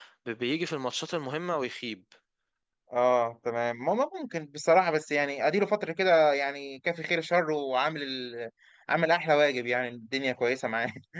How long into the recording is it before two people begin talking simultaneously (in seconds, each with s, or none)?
none